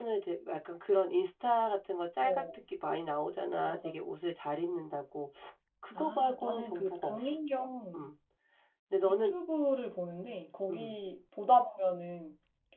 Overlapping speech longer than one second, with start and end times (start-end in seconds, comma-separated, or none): 5.9-7.2